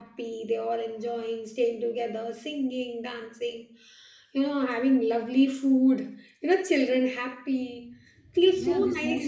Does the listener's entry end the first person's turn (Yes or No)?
Yes